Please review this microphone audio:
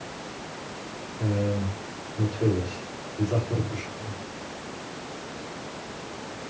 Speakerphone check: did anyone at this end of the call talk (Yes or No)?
Yes